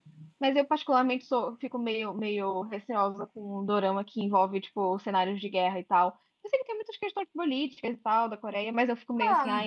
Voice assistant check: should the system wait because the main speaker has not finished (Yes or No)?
No